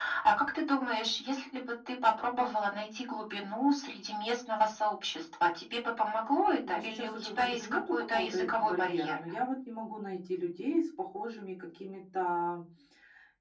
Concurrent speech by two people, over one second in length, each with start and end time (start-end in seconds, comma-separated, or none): 6.7-9.2